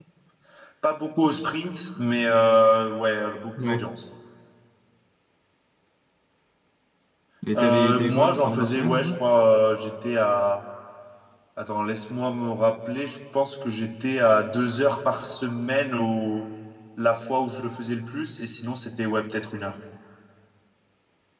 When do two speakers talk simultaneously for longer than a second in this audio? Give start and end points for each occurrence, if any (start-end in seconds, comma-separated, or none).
7.5-9.1